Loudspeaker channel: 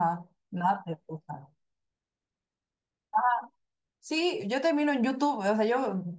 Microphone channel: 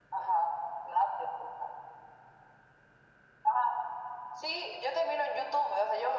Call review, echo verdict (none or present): present